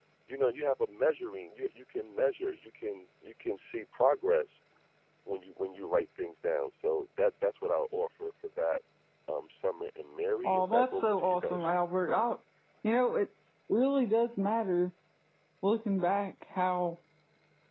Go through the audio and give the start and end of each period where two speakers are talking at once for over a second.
10.4-11.7

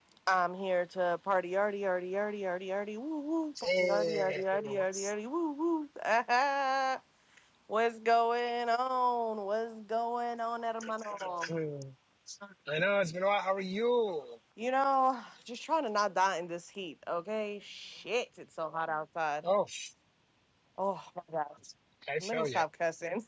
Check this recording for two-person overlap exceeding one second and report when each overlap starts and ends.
3.8-5.1

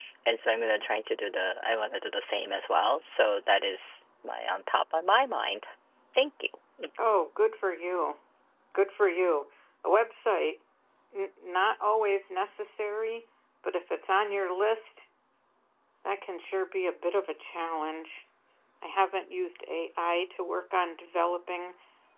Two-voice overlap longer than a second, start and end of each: none

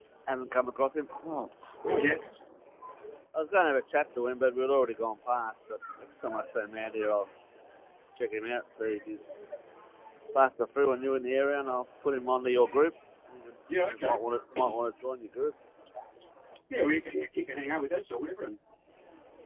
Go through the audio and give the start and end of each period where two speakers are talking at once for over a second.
none

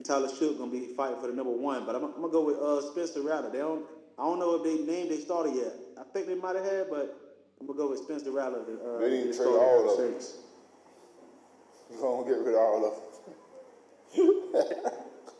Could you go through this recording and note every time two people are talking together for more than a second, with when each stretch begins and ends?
9.0-10.3

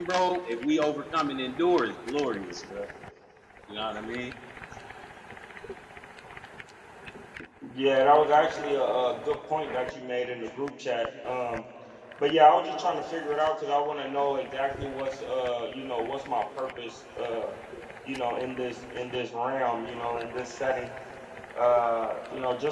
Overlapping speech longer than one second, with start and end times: none

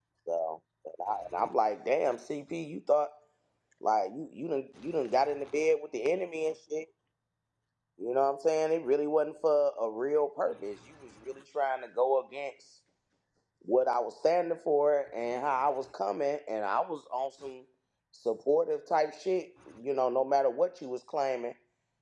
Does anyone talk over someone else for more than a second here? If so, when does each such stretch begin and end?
none

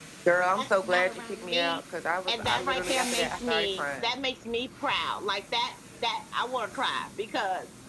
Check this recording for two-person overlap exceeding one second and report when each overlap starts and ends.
0.6-1.8, 2.3-4.1

